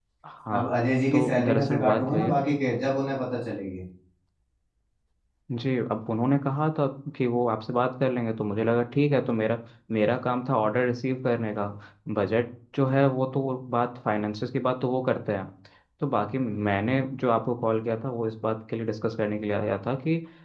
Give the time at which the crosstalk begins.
1 s

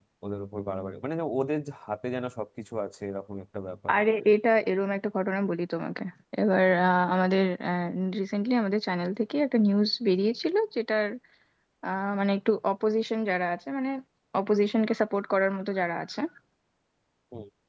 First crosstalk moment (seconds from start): none

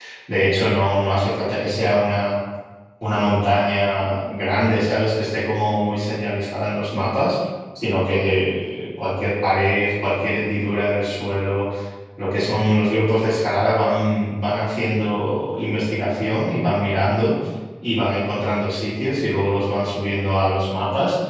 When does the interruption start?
none

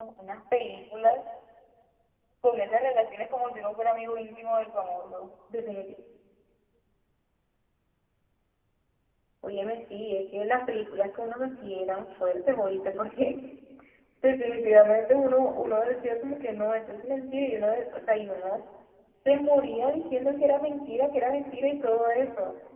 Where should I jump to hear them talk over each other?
none

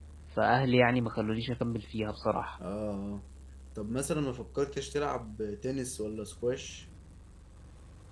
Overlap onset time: none

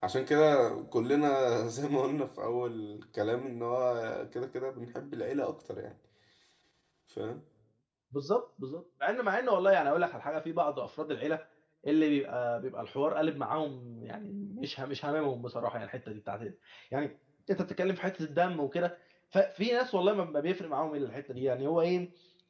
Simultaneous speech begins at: none

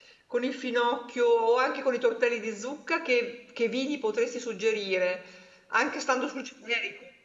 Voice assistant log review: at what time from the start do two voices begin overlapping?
none

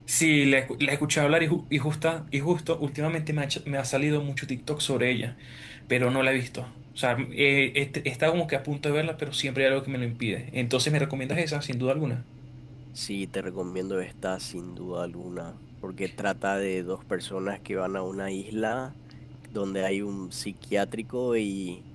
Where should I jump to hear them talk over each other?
none

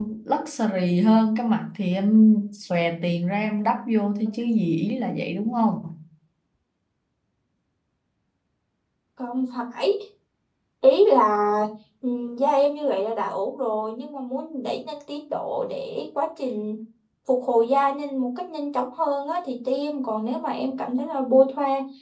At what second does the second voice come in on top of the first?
none

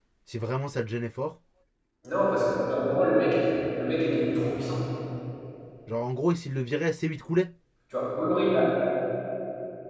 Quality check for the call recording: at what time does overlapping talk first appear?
none

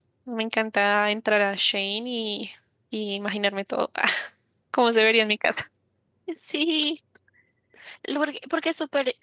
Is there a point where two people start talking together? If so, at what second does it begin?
none

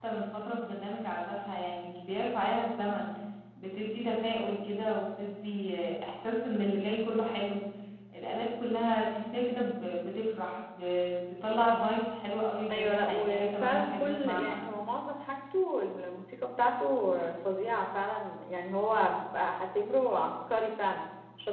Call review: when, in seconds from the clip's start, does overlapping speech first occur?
13 s

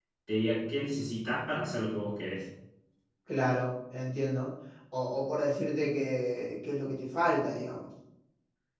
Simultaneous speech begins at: none

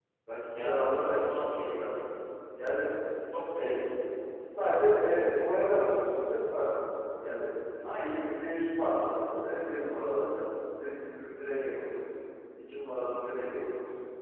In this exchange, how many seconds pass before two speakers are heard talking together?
1 s

